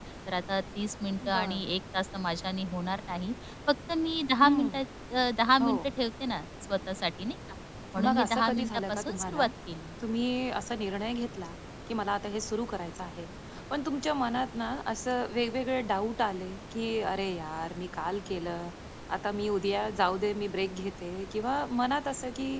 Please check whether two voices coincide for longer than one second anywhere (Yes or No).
Yes